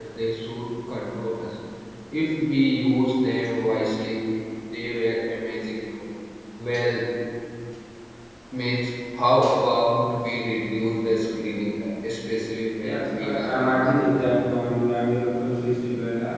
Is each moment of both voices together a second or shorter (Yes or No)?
No